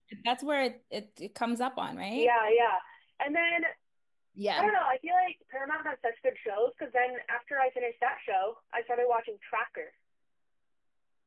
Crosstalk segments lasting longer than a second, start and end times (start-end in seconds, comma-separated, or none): none